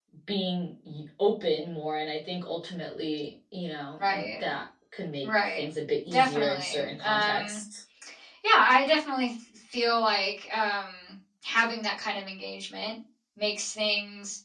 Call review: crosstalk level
present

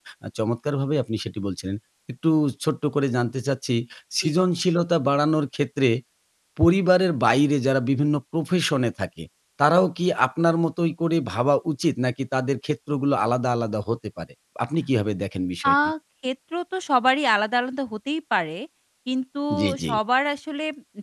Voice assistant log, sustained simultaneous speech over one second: none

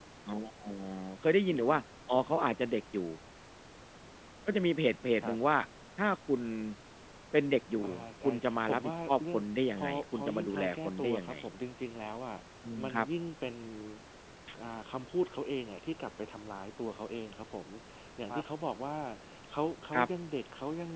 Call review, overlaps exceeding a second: present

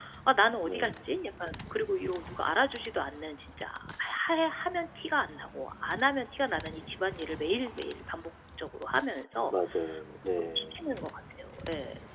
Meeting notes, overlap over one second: none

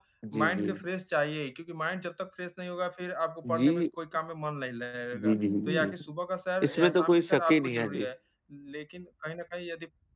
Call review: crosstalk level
present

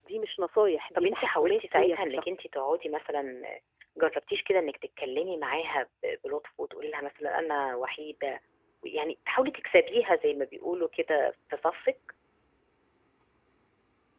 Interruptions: present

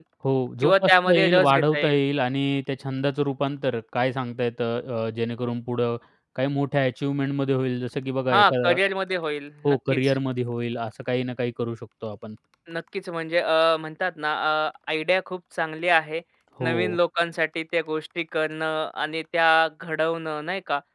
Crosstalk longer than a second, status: present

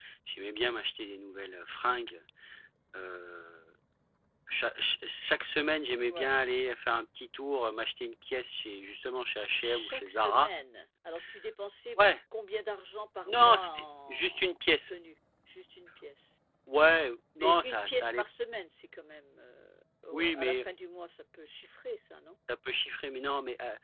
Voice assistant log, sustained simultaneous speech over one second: present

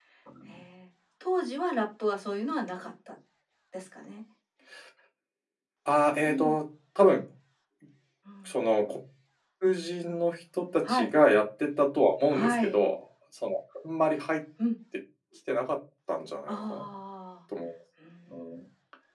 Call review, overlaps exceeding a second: none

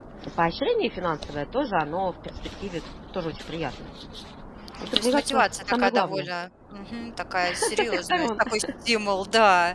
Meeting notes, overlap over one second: present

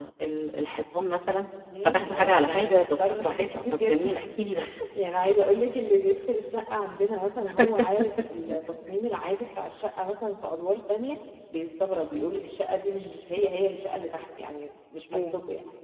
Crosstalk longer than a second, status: present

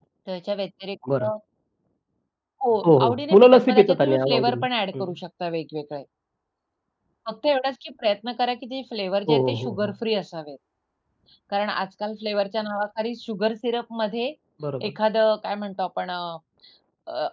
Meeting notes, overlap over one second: present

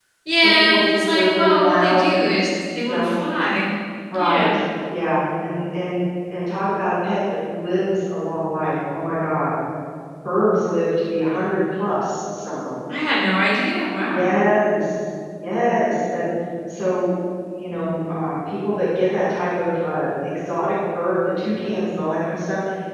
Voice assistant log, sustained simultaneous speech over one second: present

